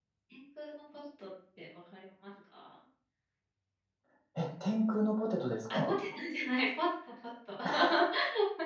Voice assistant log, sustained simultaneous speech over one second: none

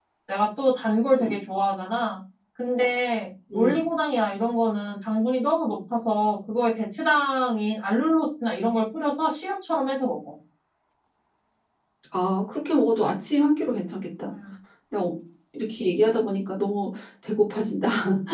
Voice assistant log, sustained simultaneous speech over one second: none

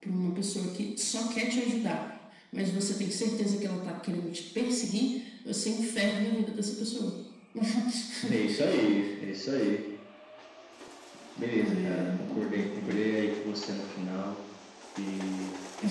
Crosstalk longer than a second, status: present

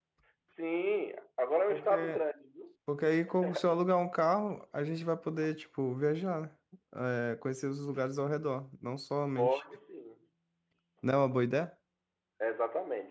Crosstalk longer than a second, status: none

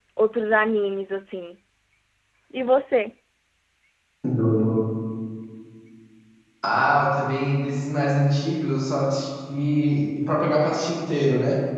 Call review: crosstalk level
none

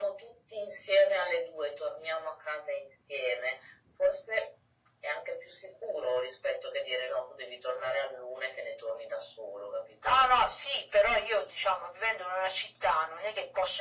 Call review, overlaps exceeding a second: none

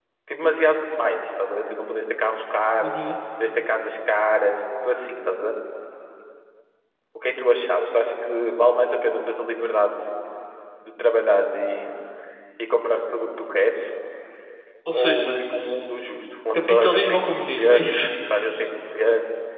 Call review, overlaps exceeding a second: present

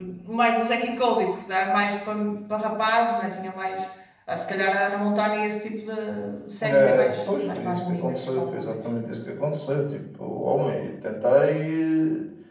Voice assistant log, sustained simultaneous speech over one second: present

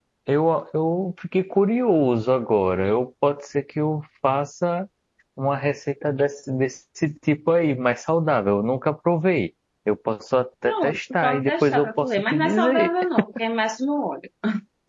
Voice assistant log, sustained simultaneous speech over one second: present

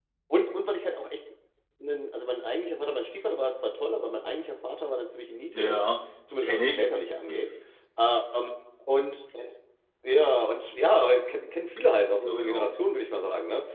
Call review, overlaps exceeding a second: none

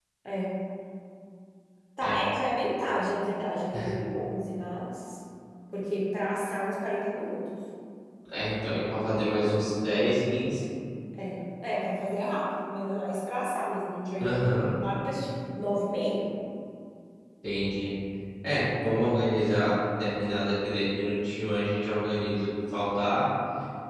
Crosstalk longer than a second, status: none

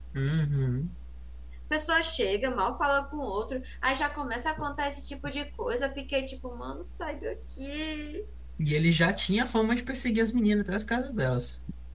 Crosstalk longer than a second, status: none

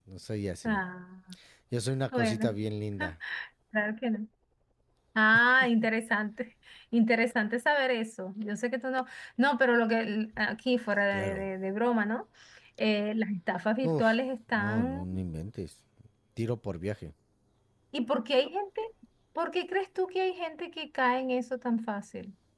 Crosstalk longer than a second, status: none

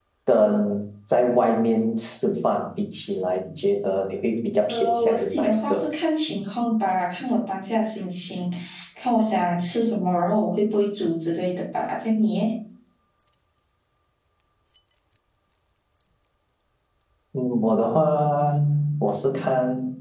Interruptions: present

